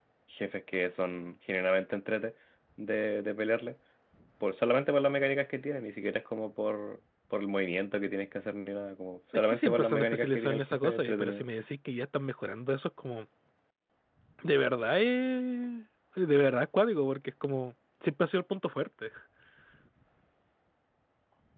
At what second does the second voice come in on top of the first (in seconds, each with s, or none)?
9.5 s